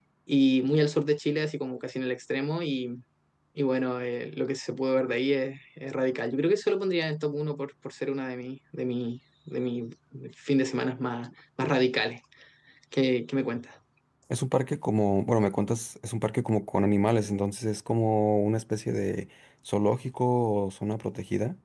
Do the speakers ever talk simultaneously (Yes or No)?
No